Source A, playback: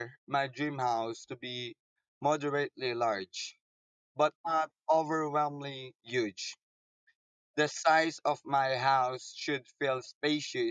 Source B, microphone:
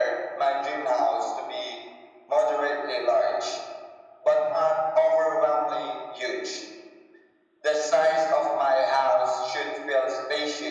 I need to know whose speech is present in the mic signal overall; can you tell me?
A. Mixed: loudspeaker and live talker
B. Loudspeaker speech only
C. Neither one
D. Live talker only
B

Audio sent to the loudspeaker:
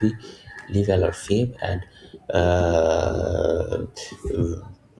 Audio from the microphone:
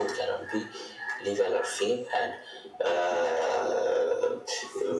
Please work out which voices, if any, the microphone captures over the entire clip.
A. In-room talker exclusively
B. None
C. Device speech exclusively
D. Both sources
C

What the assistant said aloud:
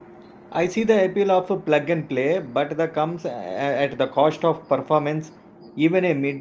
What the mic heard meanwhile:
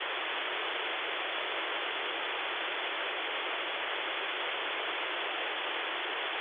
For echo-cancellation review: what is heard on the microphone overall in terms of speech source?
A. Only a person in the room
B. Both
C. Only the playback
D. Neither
D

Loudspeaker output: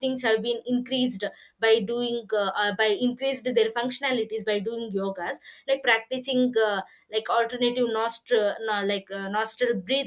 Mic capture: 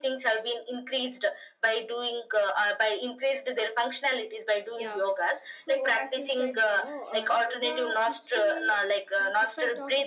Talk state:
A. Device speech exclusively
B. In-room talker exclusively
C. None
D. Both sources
D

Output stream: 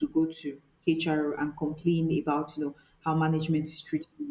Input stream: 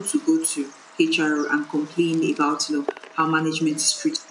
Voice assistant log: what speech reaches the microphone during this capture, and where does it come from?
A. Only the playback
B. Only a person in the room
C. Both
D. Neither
A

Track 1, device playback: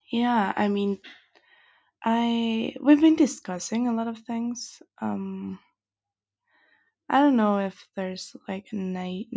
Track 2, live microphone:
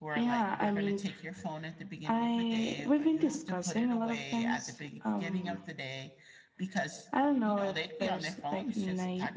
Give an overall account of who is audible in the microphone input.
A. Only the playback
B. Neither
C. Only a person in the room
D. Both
D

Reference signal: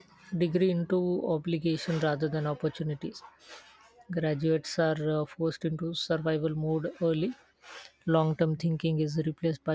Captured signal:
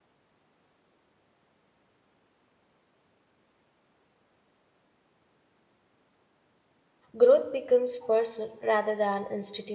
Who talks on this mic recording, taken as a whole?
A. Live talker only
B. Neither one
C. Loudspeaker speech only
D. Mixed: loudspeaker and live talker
A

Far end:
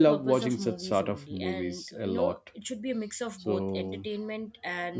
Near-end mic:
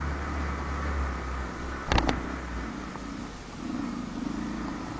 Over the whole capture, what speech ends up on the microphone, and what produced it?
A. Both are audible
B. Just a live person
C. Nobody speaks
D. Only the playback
C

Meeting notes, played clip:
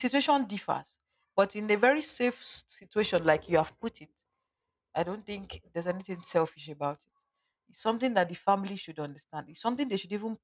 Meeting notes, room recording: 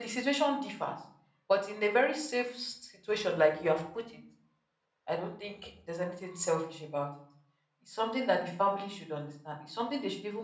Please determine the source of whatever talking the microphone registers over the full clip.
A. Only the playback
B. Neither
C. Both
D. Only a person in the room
A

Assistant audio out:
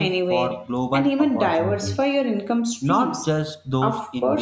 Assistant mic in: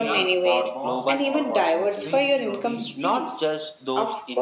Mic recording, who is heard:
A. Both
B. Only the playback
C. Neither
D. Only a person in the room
A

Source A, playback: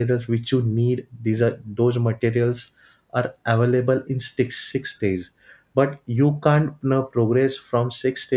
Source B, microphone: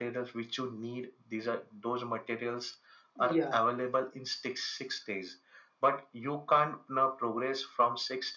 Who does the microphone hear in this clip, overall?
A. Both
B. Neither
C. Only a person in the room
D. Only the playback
A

